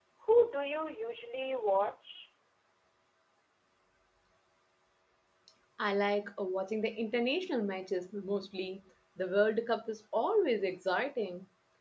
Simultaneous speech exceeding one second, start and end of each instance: none

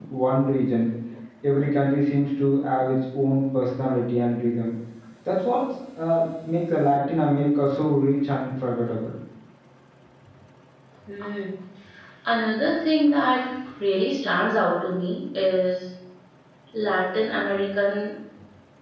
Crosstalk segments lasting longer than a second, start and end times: none

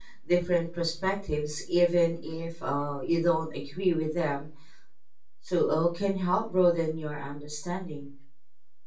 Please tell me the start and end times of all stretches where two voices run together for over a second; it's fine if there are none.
none

